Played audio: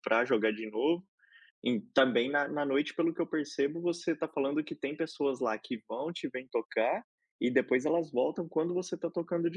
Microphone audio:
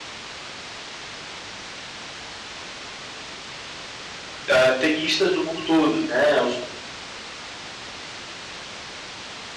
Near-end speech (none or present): present